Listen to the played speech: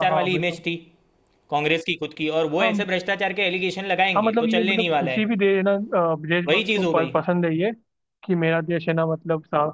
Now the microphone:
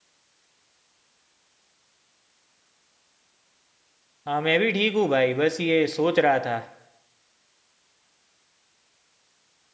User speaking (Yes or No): Yes